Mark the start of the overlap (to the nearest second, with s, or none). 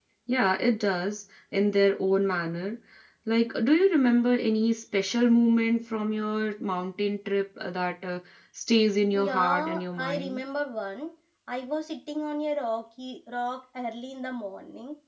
9 s